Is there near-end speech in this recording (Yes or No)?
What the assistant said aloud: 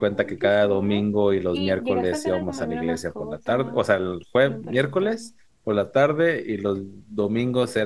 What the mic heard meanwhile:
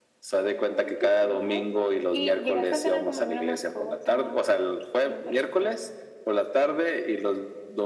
No